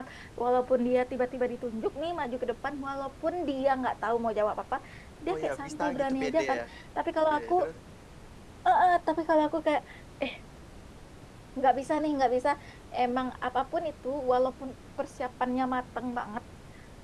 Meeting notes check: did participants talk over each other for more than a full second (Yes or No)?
Yes